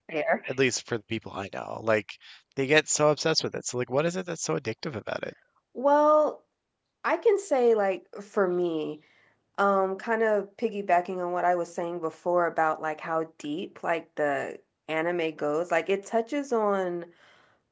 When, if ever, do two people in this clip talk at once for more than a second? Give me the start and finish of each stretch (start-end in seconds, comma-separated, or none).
none